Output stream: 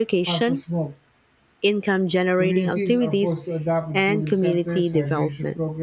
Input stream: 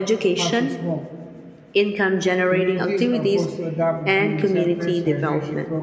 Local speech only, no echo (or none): none